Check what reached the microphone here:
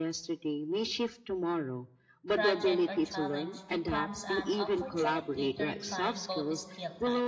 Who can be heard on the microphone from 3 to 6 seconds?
both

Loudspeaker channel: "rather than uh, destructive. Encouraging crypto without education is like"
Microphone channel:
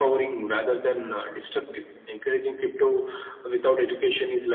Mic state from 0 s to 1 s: echo only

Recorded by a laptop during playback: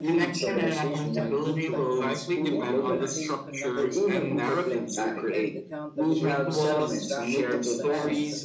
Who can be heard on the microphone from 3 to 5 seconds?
both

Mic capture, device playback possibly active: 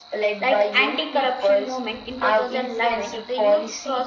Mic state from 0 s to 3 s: both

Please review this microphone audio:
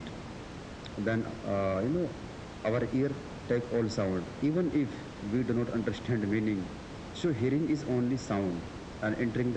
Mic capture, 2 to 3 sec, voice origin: echo only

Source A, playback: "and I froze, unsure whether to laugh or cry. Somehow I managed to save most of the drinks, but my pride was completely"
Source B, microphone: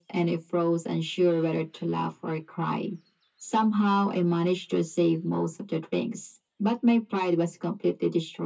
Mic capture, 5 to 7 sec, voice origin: echo only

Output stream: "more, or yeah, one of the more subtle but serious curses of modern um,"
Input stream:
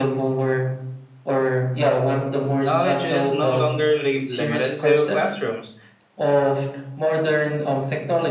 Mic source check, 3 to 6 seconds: both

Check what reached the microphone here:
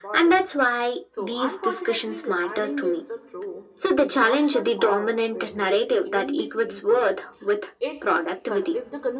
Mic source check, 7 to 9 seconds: both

